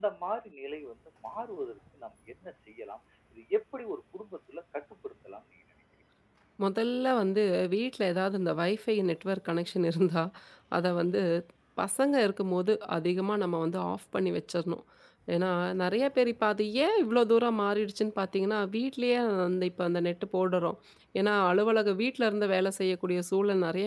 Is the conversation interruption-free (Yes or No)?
Yes